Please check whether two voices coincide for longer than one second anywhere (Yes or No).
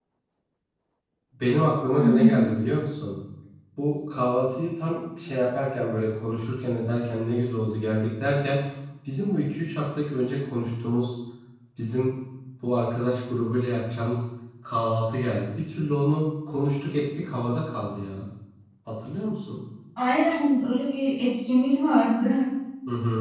No